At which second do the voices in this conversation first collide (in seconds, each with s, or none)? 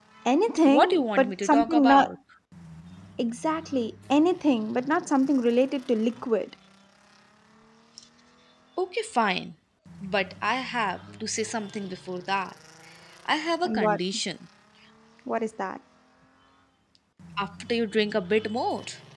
0.6 s